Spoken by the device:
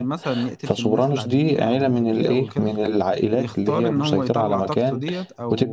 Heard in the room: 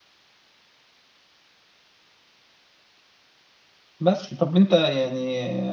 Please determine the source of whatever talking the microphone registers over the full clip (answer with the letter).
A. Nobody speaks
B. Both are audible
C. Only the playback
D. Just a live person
D